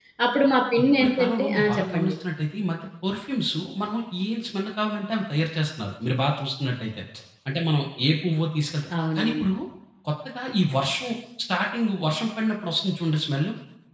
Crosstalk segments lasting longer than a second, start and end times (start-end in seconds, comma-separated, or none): 0.8-2.1